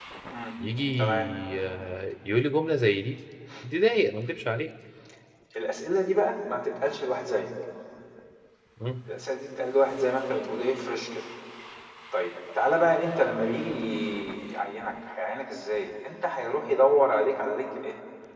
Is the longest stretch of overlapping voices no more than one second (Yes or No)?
Yes